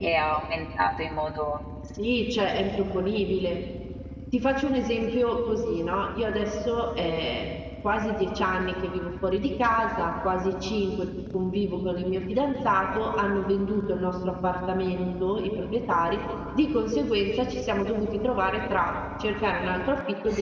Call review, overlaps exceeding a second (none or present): none